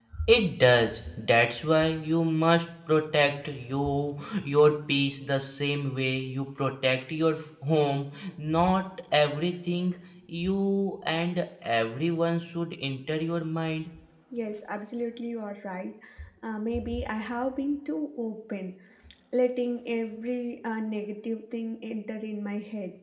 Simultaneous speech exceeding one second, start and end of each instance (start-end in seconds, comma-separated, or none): none